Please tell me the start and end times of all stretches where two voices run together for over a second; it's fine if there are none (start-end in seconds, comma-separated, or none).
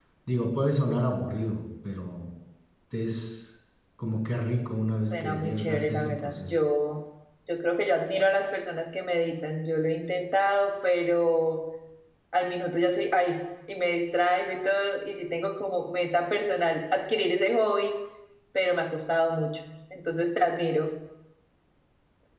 5.1-6.5